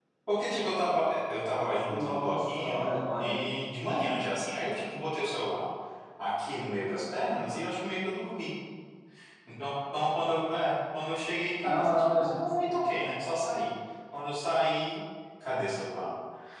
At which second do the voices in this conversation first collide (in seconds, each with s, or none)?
1.9 s